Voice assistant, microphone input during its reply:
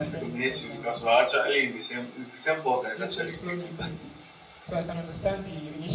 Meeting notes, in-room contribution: present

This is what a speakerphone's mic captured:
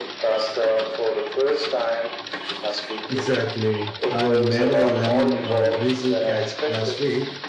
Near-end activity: present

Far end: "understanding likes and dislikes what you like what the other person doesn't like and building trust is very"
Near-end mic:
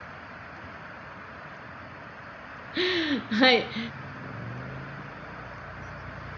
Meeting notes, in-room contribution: present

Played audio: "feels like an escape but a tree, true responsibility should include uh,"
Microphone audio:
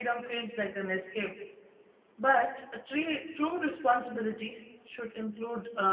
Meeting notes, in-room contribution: none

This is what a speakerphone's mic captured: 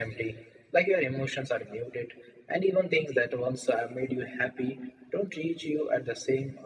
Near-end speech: none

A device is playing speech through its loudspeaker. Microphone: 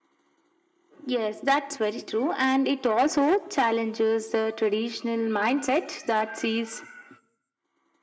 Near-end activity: none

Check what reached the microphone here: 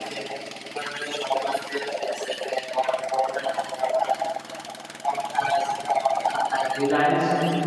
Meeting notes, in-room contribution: present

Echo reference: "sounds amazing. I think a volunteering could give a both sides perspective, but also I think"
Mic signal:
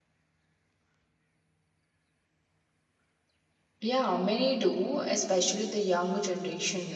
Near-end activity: present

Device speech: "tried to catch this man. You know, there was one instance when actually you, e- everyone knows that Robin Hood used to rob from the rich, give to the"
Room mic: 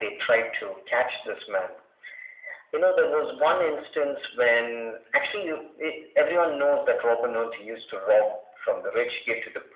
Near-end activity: none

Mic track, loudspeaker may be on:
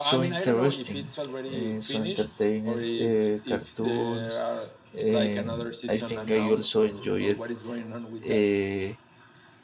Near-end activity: present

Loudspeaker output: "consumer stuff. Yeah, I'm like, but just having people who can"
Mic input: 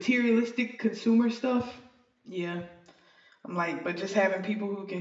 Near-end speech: none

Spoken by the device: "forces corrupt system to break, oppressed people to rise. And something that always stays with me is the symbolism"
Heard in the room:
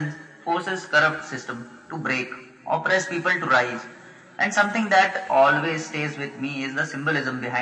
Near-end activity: none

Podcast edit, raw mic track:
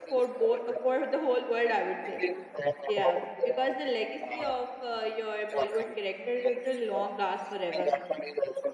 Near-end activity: present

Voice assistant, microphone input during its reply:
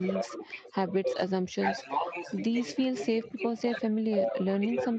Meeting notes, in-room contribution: present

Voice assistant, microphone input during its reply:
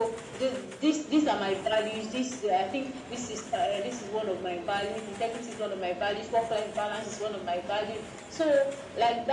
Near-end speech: none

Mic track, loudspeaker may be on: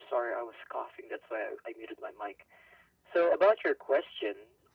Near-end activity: none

